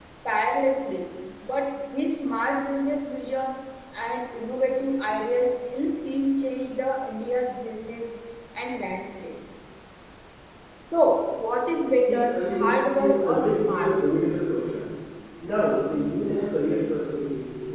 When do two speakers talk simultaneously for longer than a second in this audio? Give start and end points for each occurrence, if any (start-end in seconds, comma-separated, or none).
12.1-14.2